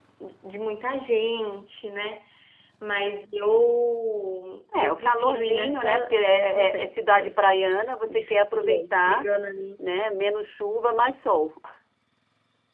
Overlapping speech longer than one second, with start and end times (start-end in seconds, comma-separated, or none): 4.8-7.4, 8.1-9.3